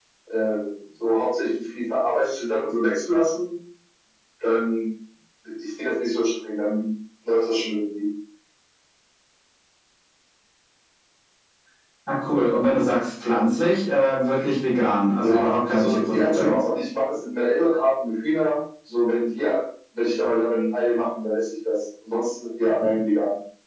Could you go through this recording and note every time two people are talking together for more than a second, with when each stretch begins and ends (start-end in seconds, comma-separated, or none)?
15.2-16.5